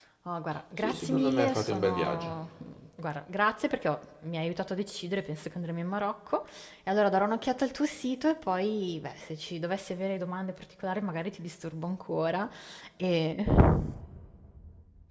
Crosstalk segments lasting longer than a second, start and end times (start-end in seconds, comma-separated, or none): 0.8-2.3